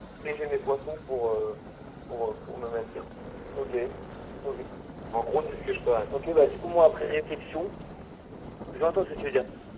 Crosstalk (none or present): none